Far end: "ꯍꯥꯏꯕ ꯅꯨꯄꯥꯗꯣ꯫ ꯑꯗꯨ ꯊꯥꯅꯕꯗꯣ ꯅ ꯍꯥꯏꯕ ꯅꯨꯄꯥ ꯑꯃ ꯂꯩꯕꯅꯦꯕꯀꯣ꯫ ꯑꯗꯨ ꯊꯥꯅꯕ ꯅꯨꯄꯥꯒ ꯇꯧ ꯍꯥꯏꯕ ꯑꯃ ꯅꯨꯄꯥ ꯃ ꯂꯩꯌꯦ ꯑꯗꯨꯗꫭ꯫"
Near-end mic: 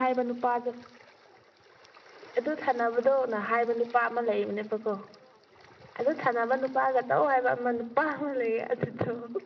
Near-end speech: none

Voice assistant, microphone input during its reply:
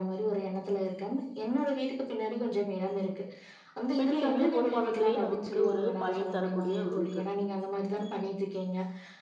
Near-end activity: present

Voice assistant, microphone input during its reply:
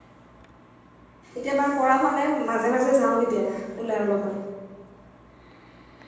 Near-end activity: present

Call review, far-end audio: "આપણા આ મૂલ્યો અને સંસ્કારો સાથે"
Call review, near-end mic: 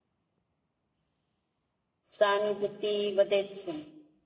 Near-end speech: present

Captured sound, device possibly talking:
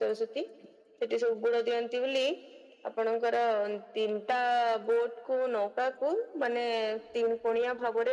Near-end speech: none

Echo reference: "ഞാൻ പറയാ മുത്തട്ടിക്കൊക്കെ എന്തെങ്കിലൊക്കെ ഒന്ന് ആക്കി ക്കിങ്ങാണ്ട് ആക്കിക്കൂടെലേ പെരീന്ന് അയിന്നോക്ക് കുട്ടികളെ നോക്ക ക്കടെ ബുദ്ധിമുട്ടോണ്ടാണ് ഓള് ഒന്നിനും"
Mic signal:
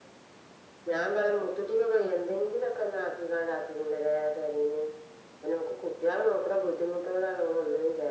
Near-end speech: none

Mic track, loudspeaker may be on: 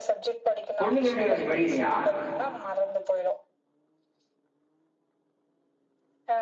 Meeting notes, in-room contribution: present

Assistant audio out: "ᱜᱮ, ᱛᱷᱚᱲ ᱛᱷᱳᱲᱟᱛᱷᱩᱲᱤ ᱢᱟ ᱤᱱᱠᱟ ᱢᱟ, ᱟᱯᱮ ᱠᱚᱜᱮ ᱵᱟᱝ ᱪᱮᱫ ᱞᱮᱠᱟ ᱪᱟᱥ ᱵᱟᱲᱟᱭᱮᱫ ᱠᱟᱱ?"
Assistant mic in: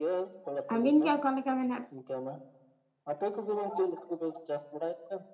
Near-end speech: present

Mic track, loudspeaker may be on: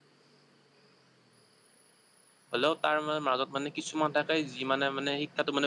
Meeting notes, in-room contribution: present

